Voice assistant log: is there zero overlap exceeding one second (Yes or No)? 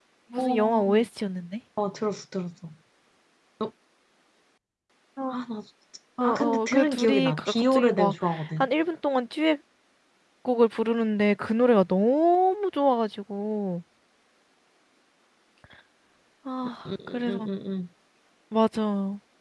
No